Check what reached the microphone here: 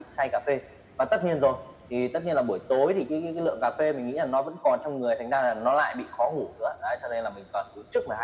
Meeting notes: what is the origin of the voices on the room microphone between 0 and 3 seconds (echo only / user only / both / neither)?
echo only